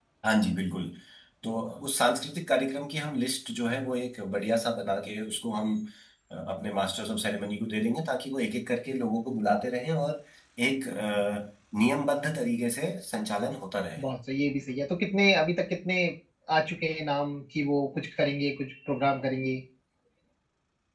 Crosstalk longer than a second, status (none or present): none